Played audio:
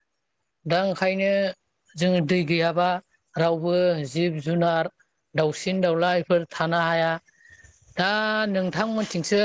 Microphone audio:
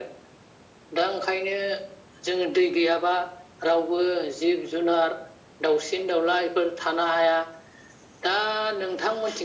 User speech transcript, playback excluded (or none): none